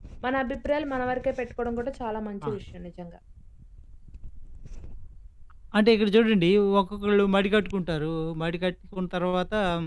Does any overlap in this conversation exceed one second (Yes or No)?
No